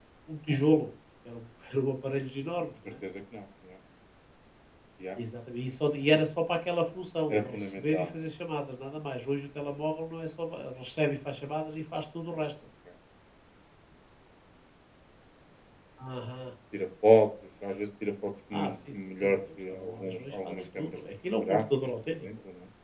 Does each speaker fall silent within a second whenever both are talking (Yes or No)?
No